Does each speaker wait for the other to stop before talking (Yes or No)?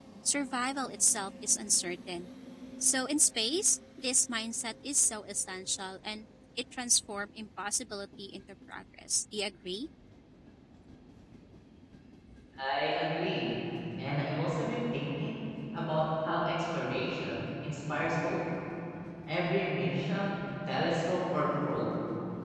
Yes